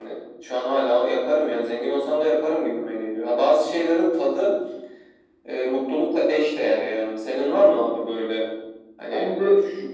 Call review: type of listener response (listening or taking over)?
taking over